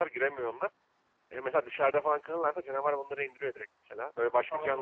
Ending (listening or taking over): listening